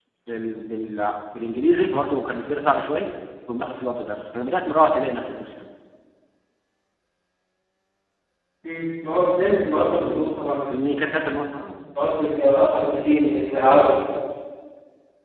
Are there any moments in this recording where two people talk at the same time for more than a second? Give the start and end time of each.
none

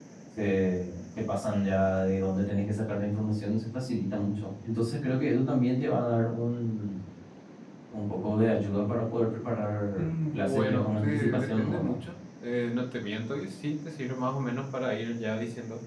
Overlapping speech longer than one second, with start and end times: 9.9-11.9

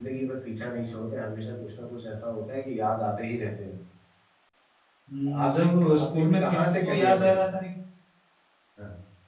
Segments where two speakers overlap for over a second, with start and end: 5.5-7.4

